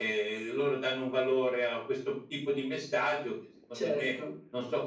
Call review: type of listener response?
listening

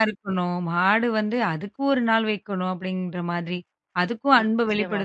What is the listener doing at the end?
listening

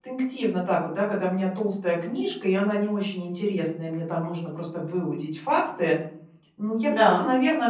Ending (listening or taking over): listening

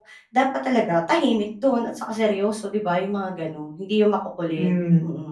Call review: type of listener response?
taking over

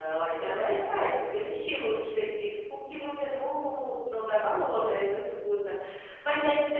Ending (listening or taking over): listening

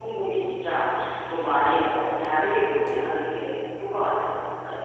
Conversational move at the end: taking over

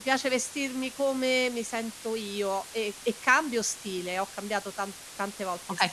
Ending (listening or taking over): taking over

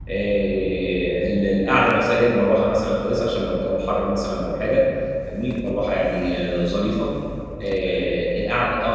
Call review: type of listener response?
listening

